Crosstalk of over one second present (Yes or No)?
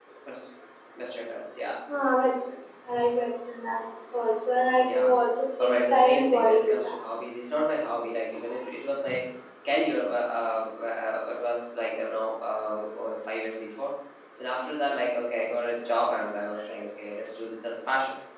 Yes